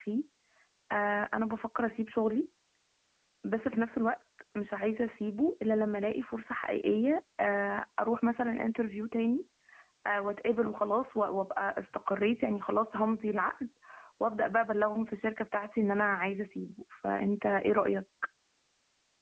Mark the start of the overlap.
none

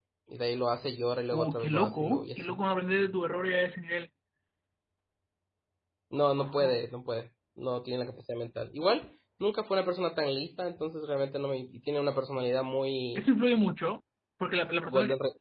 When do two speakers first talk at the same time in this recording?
1.3 s

